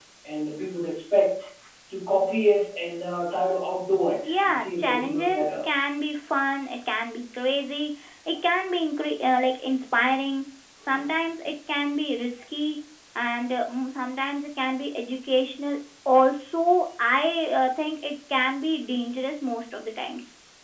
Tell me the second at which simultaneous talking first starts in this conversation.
4.2 s

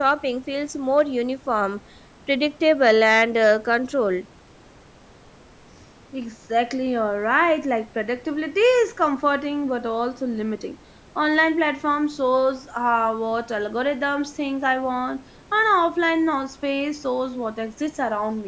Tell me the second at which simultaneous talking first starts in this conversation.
none

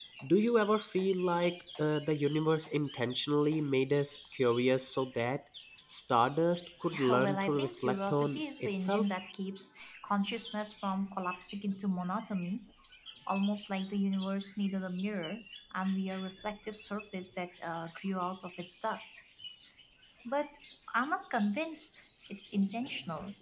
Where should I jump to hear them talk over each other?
6.9 s

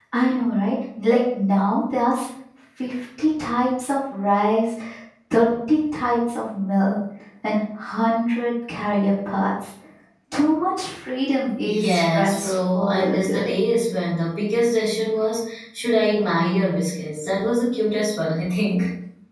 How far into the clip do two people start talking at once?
11.6 s

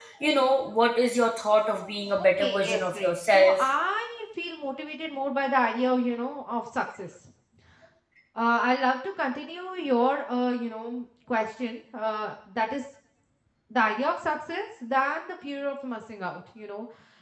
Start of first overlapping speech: 2.2 s

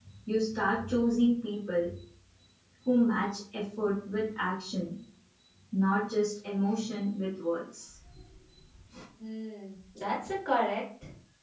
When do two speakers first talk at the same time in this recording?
none

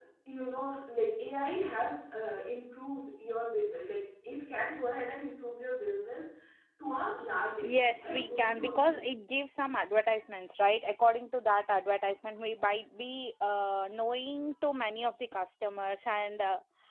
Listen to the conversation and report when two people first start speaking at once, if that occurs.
7.6 s

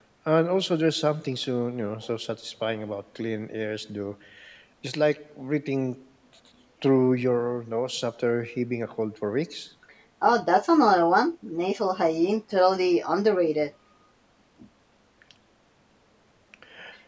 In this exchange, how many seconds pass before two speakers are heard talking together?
none

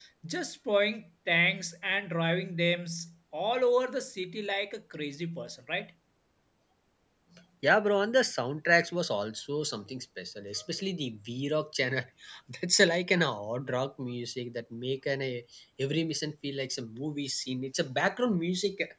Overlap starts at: none

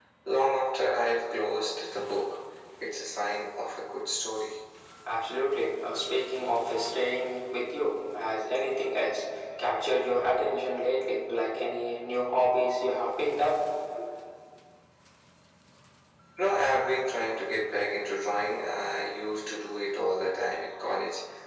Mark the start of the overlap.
none

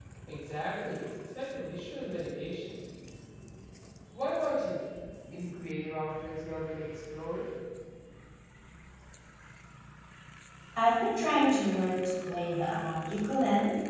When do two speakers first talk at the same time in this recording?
none

